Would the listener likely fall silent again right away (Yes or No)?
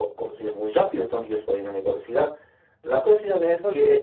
Yes